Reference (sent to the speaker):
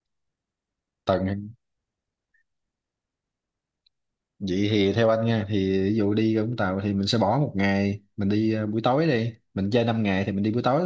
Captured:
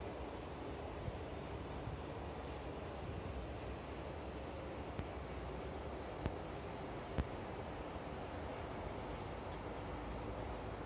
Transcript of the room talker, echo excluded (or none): none